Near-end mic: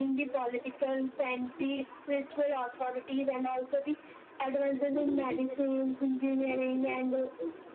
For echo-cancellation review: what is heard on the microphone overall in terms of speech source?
echo only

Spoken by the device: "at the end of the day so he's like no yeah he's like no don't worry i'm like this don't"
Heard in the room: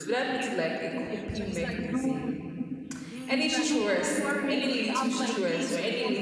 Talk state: both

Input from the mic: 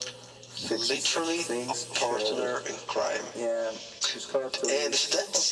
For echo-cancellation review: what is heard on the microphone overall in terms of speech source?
echo only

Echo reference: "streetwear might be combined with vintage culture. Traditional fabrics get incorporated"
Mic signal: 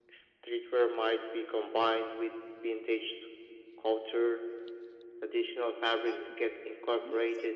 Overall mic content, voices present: both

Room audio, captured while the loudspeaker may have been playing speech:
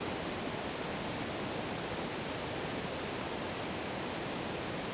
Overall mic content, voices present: neither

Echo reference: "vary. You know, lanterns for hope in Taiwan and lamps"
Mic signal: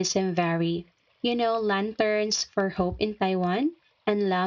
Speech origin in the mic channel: echo only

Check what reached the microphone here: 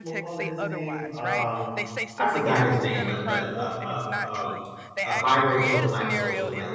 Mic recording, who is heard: both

